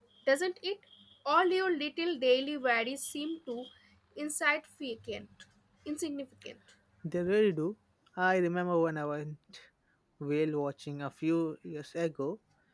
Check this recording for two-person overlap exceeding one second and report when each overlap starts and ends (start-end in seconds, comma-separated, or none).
none